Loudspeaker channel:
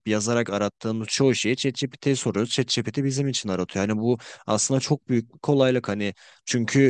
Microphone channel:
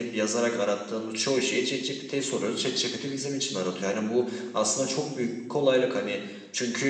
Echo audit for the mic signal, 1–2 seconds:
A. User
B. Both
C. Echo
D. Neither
C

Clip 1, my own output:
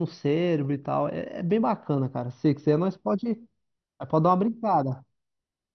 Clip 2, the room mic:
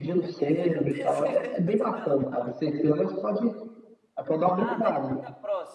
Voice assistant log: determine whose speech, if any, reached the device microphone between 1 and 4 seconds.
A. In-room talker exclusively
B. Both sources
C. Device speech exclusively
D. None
B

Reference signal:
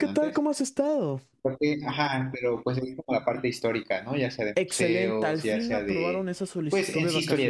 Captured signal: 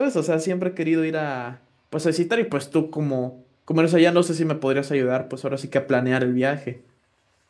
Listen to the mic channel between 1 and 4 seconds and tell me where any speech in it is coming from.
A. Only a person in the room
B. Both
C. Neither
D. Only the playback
A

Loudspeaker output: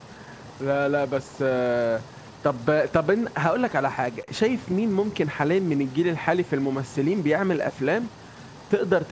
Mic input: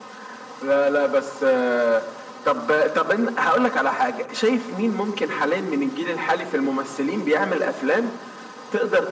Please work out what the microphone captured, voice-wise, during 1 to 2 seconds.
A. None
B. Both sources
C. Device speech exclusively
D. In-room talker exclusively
C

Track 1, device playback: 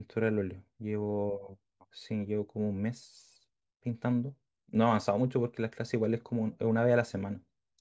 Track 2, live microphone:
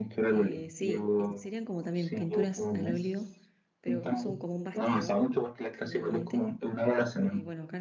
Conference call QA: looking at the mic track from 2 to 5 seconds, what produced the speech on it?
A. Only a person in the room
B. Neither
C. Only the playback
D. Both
D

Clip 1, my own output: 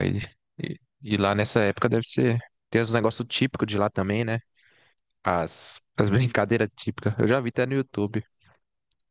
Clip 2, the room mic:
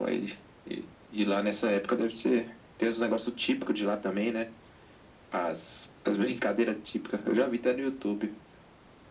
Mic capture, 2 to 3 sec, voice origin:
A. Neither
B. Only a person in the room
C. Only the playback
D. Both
C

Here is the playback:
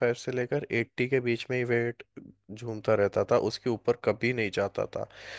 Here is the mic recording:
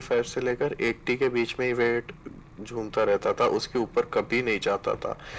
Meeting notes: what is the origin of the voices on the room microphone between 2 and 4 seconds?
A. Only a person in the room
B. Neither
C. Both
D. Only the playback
D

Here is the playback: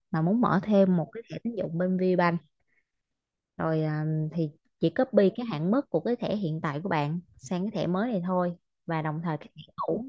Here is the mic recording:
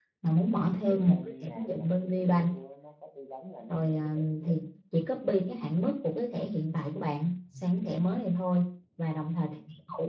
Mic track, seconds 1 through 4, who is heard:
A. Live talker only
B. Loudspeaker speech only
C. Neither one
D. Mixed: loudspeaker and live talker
D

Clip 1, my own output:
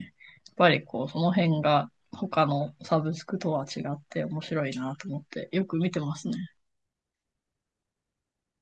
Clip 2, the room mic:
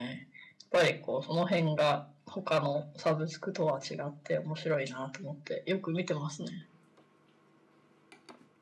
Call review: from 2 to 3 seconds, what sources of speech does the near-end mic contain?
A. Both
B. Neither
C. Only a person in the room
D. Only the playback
D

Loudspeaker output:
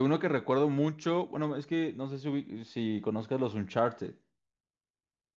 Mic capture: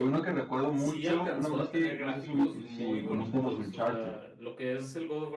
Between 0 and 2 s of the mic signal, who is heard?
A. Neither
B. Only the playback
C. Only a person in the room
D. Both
D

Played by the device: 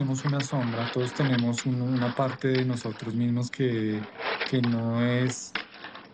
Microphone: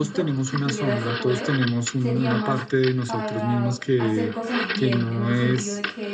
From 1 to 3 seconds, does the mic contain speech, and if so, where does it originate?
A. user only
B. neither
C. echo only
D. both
D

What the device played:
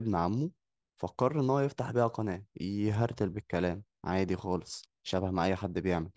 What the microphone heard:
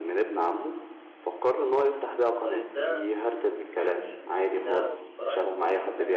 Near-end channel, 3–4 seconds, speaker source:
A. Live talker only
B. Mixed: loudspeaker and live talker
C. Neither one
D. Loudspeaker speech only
B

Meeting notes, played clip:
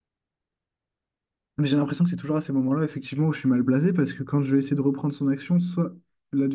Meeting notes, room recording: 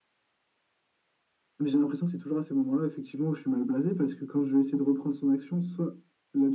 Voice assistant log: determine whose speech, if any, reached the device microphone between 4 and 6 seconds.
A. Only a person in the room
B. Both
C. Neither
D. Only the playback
D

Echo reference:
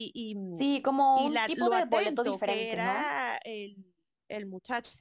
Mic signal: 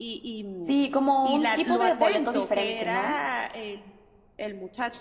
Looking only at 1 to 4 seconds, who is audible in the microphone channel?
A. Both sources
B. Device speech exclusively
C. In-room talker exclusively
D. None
B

